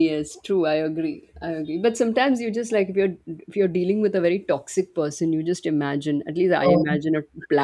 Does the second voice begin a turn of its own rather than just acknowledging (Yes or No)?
No